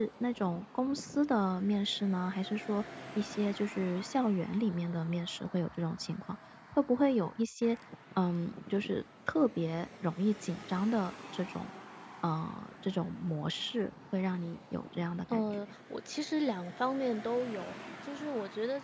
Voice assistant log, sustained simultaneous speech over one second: none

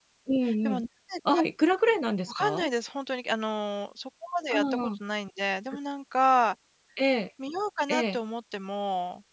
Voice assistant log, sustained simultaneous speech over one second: none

